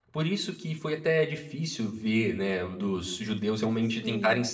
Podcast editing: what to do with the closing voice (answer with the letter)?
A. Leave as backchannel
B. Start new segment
A